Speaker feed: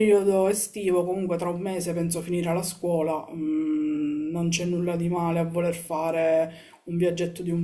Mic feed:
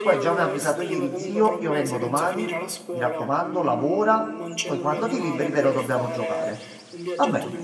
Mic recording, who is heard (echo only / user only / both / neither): both